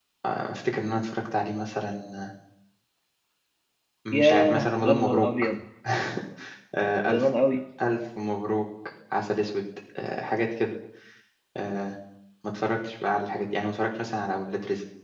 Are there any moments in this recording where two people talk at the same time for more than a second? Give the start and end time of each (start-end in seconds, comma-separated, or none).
4.1-5.5